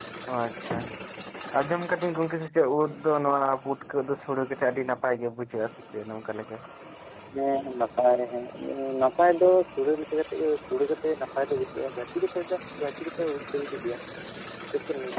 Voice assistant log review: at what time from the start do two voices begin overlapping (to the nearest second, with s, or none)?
none